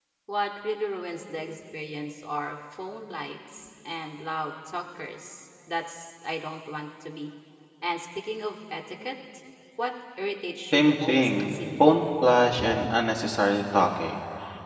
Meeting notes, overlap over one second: present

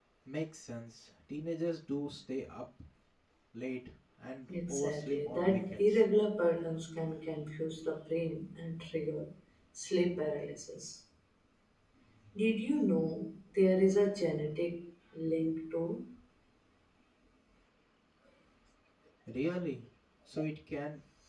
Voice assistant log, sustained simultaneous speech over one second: present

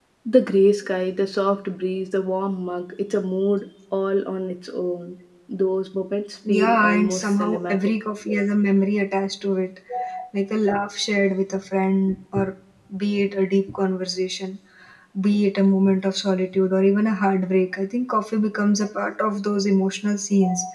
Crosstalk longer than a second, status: present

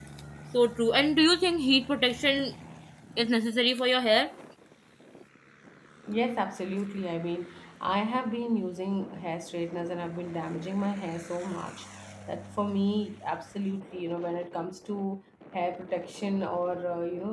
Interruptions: none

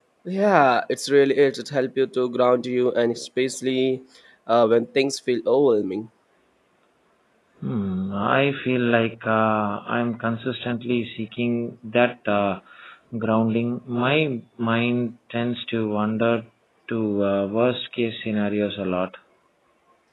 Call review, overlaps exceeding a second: none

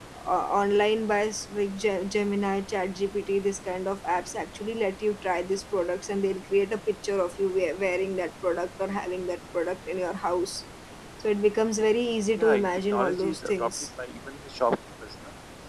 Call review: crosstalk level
present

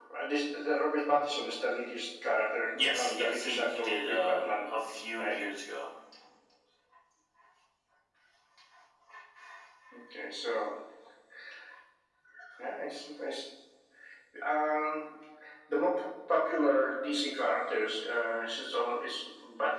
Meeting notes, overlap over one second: present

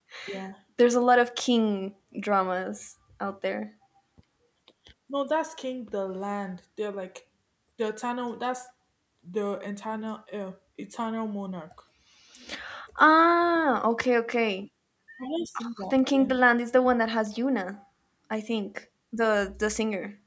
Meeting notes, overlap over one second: none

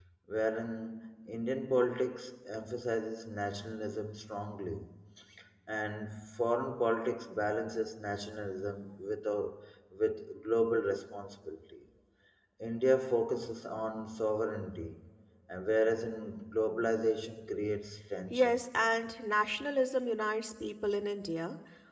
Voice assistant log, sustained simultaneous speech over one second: none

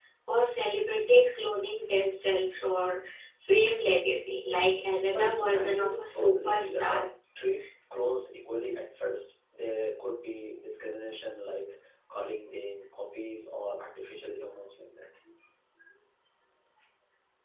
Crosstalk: present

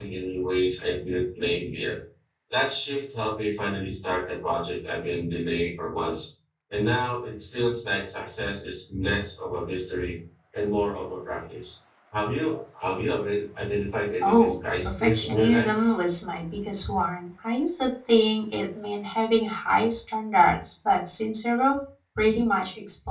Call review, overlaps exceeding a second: present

